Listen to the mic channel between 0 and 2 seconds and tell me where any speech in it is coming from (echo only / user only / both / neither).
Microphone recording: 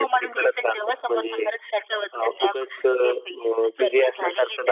echo only